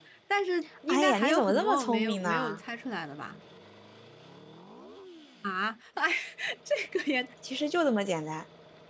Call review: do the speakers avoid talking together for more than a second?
No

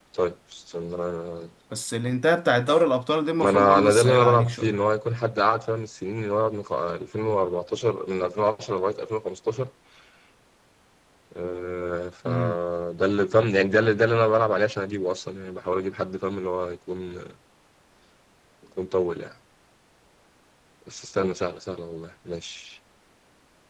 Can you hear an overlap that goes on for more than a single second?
Yes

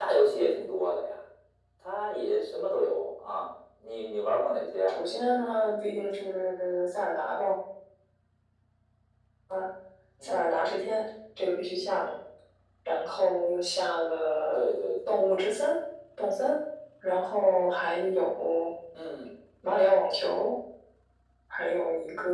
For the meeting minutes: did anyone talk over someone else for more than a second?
No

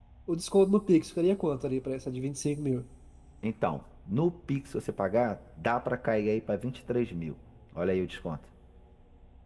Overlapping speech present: No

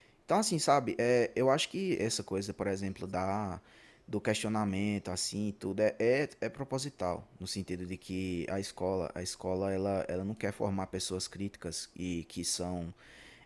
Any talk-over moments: No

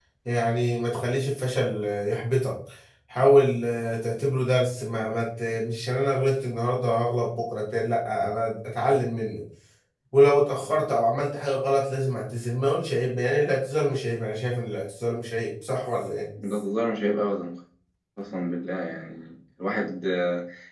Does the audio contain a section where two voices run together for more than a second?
No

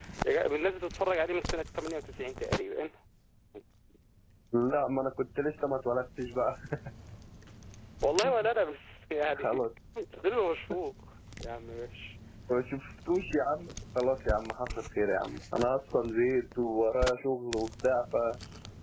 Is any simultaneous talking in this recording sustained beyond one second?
No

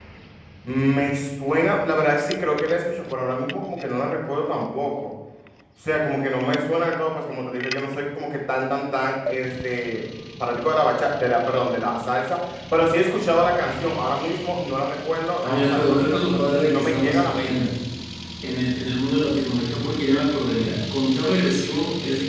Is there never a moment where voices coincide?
No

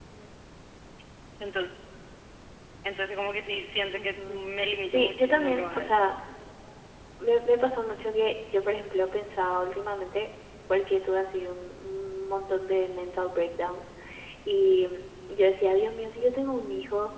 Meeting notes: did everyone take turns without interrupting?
No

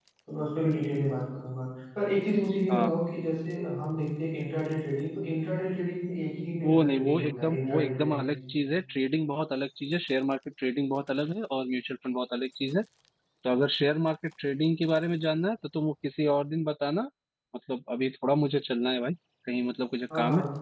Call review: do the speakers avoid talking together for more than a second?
No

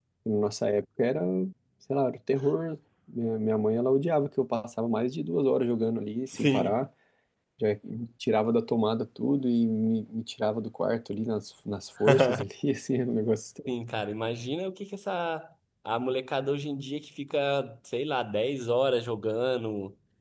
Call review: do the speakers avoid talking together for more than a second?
Yes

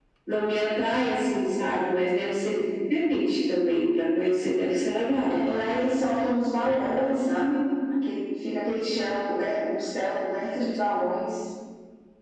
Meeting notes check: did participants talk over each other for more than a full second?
No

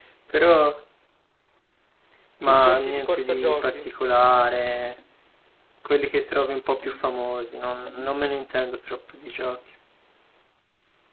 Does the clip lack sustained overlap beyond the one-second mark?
No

